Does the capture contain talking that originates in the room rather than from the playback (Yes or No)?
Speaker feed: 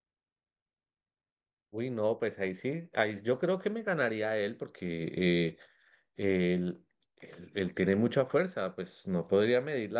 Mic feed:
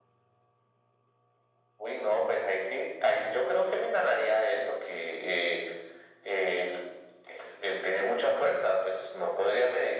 No